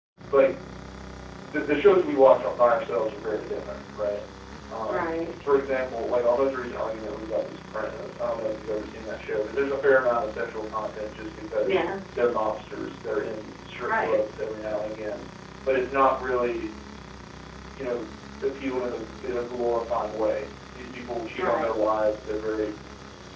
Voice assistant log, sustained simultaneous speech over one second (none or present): none